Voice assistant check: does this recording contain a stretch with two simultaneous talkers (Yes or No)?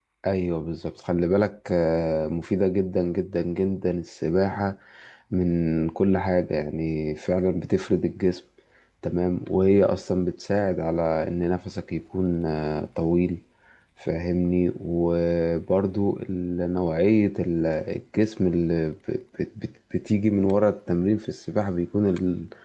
No